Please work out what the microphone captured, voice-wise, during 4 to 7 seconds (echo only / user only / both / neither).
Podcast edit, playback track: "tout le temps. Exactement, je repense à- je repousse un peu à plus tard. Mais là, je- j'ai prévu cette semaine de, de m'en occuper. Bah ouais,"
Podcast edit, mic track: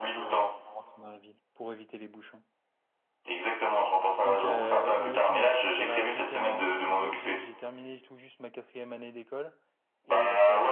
both